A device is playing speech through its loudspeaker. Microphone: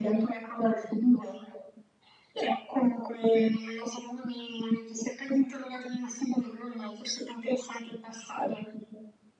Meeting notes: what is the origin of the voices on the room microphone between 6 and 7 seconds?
echo only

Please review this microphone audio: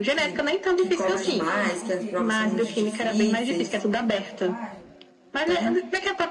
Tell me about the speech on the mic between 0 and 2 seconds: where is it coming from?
both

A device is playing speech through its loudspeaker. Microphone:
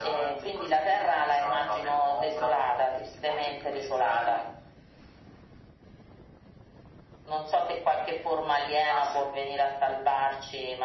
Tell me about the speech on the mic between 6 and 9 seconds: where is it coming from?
echo only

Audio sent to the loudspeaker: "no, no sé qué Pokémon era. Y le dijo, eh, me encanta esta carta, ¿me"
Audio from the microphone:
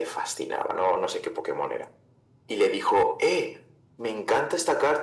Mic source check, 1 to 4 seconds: echo only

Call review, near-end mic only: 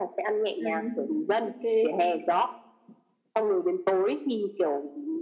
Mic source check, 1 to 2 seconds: both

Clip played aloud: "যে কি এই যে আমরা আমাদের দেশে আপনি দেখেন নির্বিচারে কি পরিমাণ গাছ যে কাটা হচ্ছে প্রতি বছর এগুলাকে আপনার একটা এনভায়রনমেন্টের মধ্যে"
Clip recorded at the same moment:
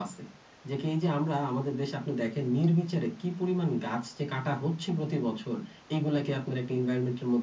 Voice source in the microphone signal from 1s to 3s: echo only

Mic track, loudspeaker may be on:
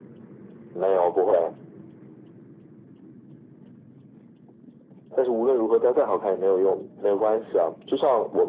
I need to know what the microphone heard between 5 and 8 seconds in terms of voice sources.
echo only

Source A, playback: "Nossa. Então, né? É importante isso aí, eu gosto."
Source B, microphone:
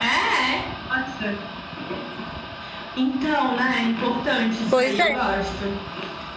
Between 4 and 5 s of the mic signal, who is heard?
both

